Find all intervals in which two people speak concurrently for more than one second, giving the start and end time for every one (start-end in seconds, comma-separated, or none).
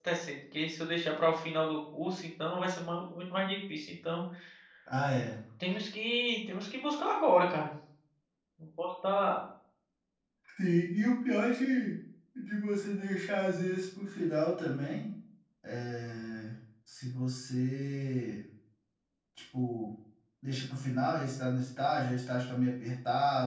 none